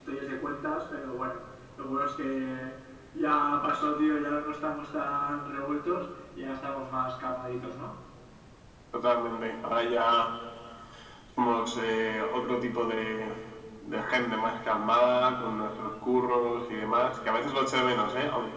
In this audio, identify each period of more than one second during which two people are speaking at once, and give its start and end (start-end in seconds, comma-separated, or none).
none